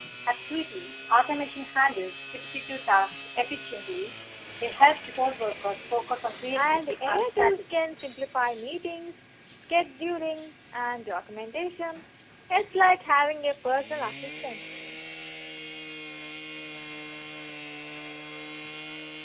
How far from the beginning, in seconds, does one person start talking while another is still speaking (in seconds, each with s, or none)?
6.5 s